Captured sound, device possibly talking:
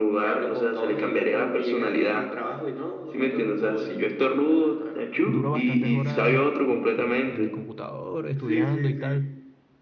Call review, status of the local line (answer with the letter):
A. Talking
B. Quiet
A